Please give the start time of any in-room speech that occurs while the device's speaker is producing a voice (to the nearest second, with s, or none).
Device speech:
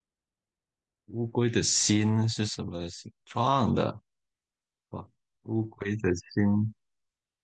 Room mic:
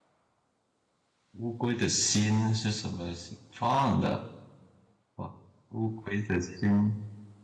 none